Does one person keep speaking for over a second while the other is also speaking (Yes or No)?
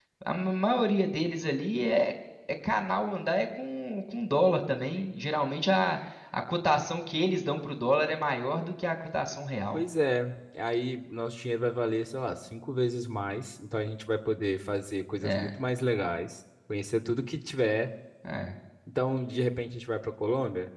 No